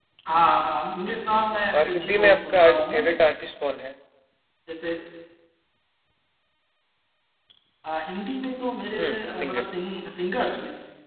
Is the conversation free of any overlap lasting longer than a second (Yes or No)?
No